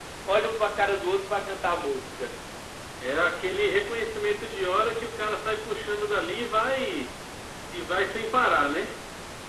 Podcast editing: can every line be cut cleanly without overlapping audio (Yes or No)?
Yes